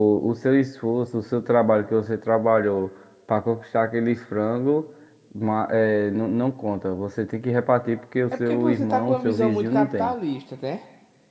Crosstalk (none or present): present